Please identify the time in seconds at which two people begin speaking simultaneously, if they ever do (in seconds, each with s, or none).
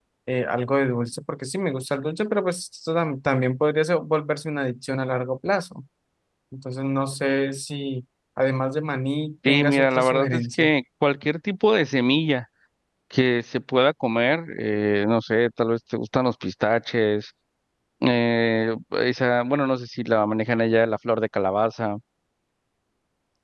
9.4 s